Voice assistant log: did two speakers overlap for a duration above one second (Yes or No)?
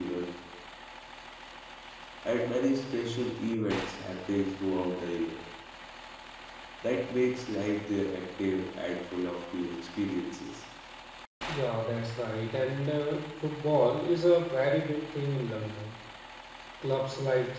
No